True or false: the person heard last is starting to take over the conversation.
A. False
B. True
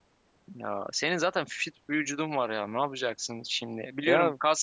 B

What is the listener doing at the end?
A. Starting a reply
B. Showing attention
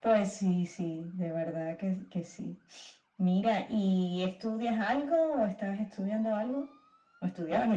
A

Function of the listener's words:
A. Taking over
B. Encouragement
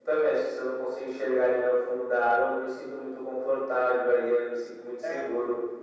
B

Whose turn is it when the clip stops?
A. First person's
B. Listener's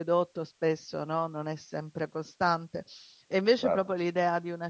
A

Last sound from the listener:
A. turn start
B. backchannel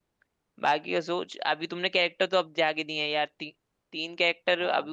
A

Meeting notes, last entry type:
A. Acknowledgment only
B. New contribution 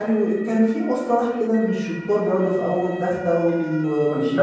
B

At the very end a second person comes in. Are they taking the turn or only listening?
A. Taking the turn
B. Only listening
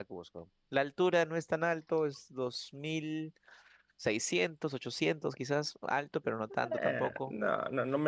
A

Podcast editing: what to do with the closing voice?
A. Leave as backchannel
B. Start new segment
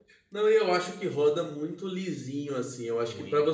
A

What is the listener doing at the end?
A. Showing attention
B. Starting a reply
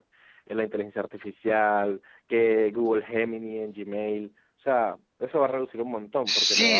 B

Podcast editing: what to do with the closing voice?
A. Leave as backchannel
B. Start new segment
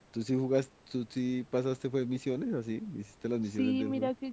B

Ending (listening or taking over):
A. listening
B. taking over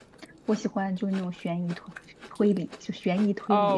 B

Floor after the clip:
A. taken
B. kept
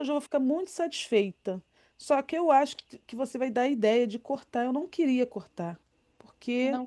B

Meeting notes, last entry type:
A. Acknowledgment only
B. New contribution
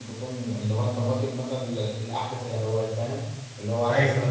A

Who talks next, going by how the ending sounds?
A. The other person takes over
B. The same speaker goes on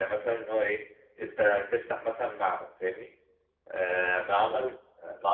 B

